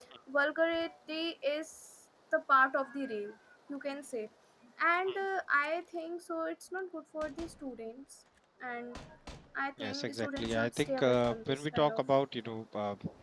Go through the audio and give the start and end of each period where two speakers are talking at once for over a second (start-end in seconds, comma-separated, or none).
9.8-12.0